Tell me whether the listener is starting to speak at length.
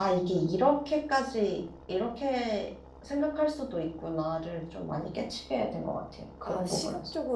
Yes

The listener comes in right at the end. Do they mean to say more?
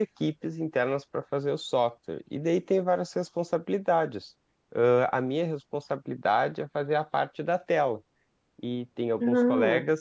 No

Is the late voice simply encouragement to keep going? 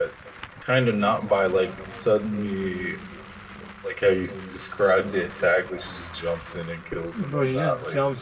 No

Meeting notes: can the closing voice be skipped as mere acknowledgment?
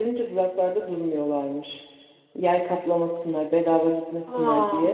Yes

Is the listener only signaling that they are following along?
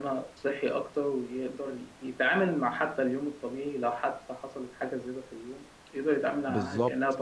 No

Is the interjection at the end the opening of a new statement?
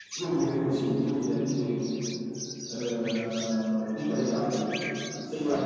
No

